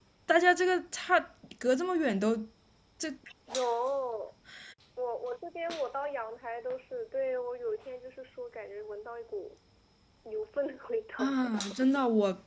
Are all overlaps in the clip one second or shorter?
Yes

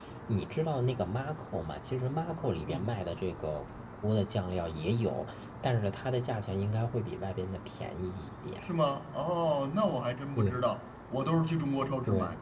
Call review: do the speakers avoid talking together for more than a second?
Yes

